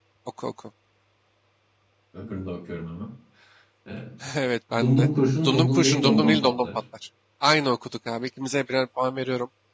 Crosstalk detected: Yes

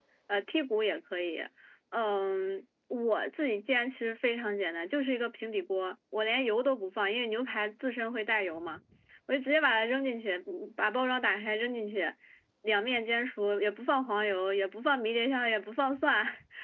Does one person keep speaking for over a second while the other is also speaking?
No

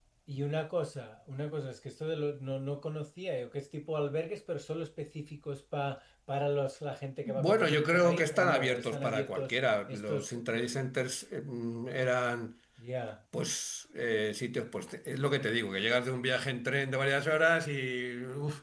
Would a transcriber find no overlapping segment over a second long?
No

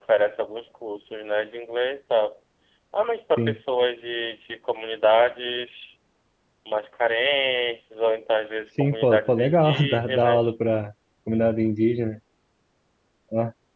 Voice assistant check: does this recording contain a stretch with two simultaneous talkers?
Yes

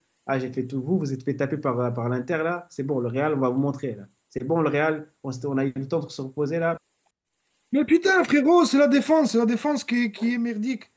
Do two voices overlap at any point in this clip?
No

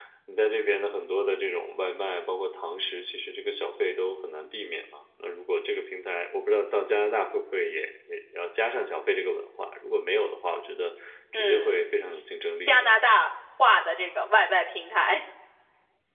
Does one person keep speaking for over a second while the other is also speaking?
No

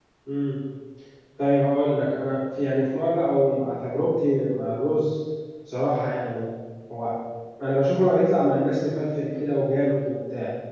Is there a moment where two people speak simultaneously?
No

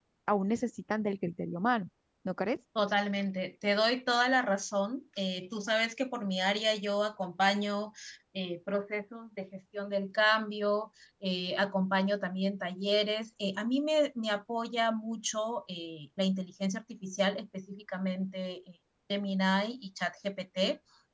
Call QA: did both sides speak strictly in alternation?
Yes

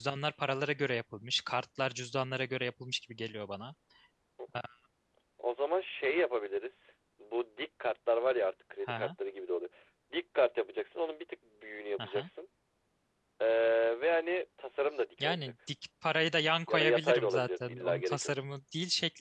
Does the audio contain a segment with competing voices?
Yes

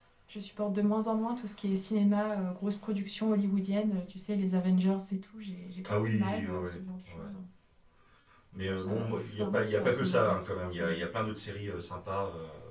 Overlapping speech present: Yes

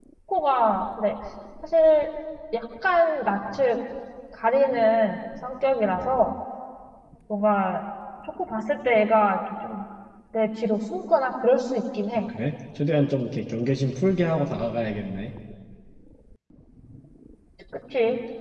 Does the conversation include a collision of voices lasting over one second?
No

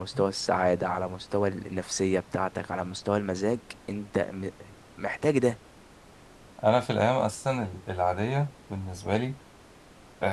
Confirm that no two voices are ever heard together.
Yes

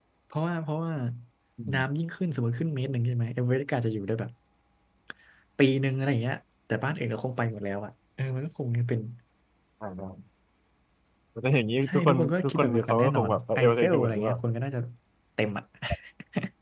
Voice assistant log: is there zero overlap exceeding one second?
No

